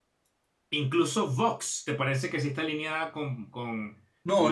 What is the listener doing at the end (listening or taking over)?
taking over